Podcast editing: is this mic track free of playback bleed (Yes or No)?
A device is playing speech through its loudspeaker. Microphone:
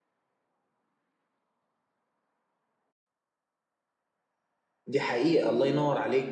Yes